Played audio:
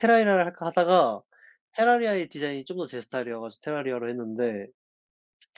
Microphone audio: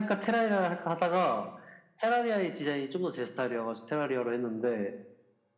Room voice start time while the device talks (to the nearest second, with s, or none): none